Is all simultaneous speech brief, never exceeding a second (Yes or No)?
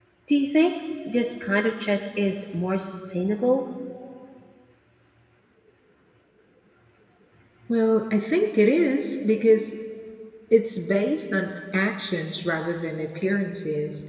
Yes